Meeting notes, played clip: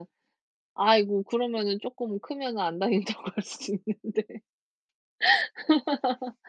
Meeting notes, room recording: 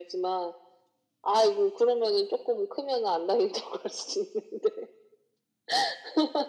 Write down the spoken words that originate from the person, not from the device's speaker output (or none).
none